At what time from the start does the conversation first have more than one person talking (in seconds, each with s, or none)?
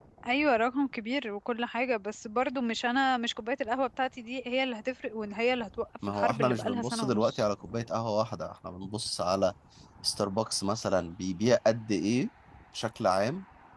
6.0 s